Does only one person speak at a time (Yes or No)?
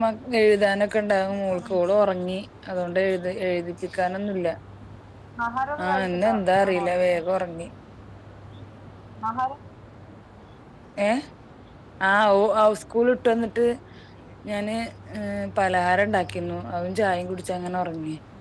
No